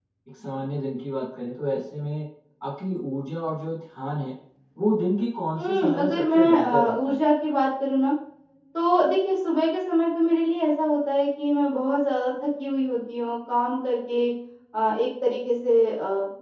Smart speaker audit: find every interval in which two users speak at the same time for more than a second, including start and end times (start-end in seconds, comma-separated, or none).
5.5-7.2